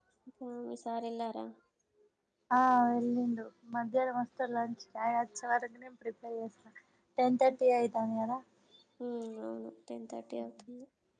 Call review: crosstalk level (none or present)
none